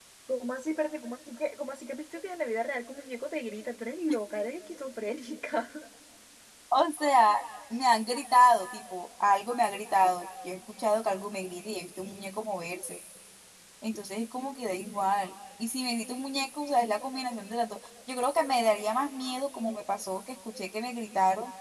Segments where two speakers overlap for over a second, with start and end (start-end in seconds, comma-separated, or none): none